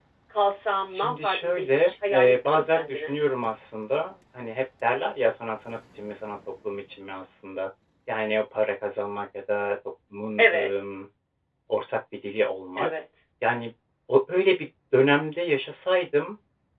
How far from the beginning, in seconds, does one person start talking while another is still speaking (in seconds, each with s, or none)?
0.9 s